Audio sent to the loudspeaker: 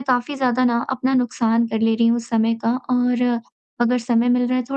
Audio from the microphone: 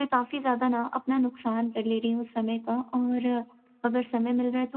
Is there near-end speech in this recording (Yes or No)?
No